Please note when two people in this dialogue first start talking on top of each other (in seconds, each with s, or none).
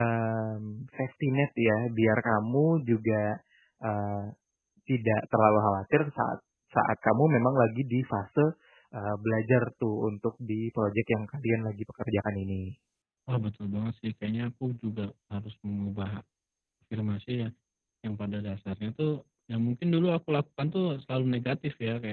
none